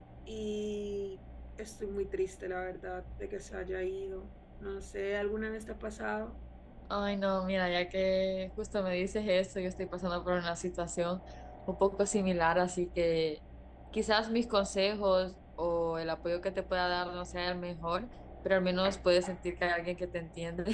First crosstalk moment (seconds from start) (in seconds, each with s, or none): none